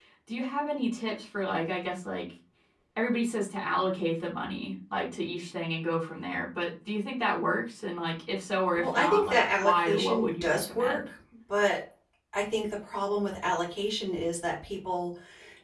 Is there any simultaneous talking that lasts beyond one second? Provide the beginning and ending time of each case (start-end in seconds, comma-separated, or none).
8.7-11.1